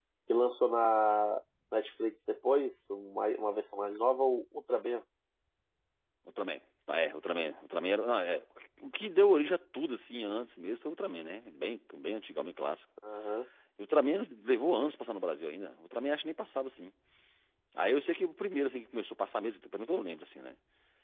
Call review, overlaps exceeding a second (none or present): none